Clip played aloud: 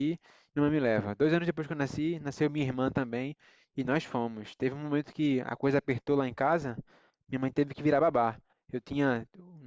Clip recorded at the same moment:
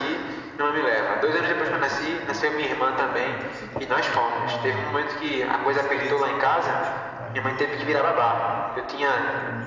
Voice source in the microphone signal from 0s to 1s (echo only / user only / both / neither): echo only